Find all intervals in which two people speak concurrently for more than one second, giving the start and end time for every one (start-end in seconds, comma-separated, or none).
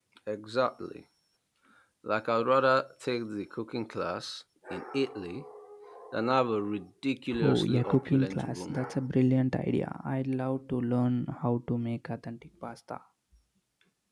7.4-8.8